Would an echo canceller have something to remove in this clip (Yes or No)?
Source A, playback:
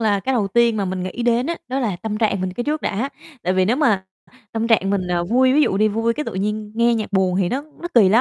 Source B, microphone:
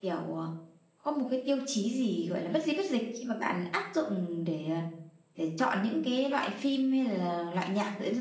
No